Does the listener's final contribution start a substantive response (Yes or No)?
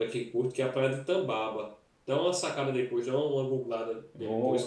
Yes